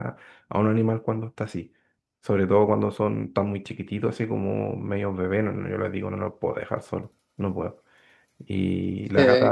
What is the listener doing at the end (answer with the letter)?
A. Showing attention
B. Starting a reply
A